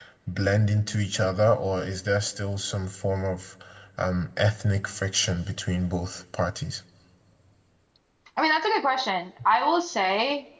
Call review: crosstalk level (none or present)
none